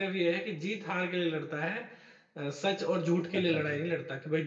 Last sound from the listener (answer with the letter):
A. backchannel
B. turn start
A